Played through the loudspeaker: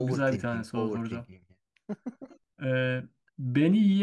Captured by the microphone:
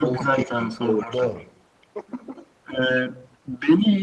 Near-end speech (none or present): present